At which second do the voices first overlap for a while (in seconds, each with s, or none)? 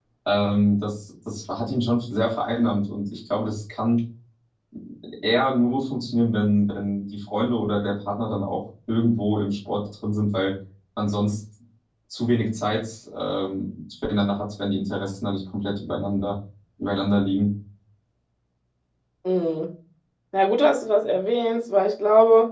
none